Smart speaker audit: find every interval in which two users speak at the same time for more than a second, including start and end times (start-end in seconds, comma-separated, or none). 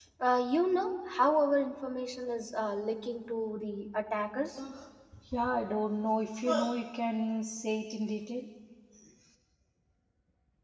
none